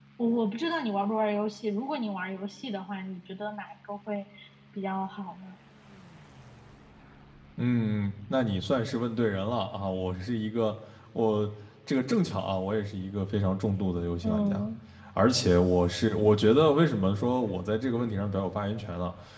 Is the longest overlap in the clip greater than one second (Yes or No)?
No